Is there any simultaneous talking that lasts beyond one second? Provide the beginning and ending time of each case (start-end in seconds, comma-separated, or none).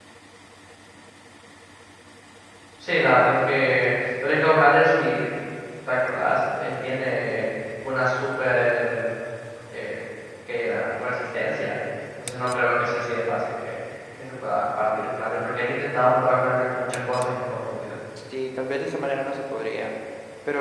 none